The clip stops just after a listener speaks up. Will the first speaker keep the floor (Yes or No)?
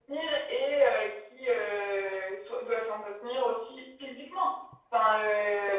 Yes